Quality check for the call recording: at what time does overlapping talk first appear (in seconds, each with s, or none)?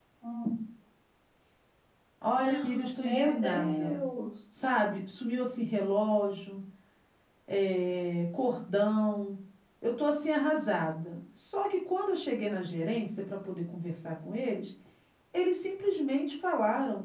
2.4 s